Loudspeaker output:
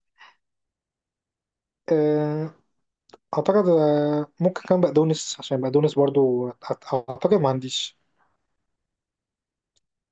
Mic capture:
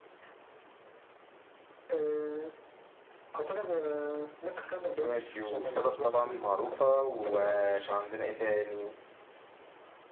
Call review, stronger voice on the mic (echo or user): user